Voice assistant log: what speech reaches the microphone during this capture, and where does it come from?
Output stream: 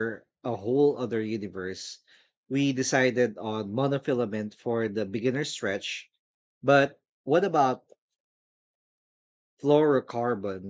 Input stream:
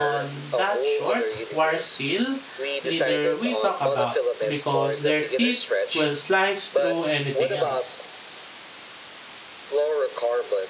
both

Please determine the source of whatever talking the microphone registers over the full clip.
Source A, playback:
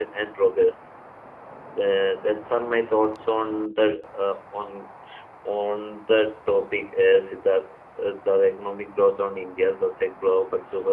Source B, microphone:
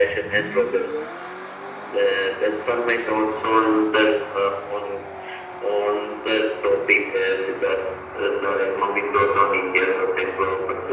echo only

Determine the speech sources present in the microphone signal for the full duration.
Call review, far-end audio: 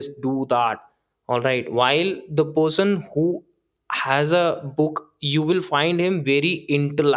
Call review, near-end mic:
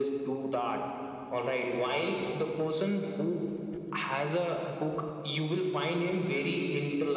echo only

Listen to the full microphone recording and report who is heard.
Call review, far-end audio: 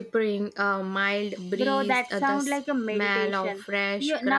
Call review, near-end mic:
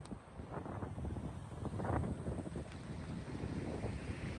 neither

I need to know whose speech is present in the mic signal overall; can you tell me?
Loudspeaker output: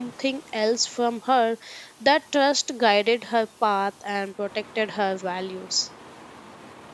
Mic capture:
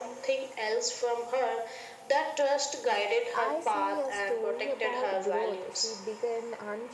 both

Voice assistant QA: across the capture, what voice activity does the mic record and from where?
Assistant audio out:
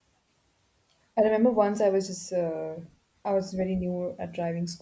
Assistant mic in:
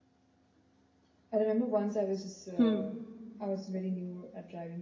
both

